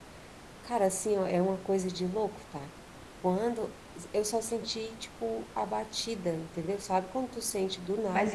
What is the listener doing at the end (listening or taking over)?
taking over